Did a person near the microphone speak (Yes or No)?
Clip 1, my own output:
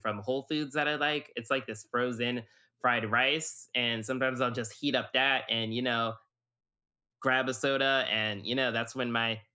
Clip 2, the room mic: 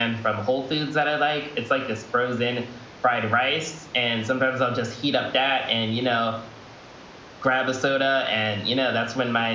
No